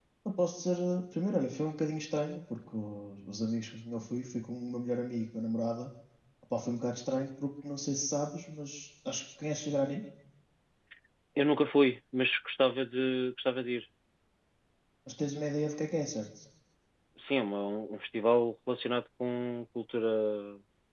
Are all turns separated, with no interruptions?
Yes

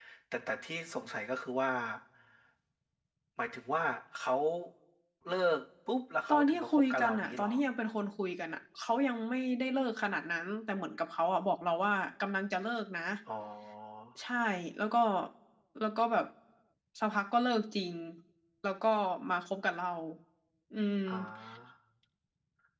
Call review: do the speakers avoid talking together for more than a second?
No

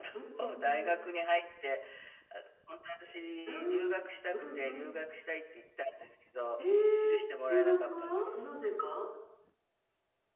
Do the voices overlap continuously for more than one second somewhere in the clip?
Yes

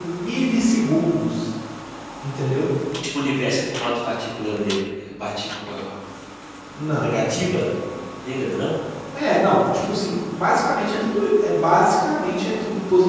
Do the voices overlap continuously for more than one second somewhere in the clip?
No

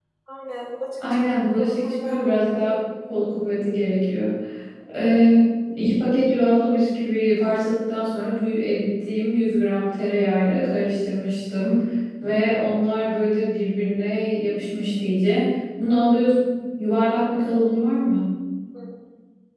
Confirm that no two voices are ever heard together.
No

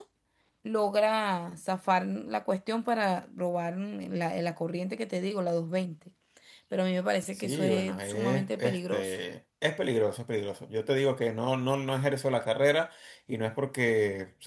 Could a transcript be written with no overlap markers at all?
No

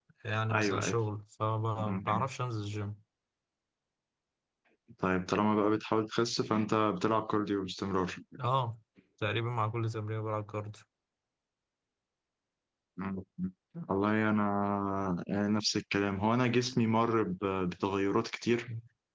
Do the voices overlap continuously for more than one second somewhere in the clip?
No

